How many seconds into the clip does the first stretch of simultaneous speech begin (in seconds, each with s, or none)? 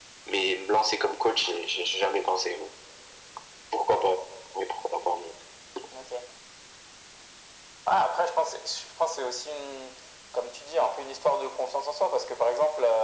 none